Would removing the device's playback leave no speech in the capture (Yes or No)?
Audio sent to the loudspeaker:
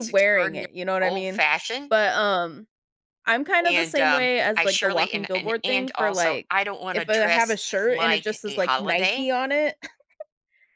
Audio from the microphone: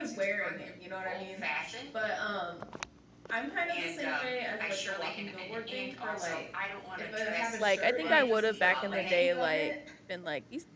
No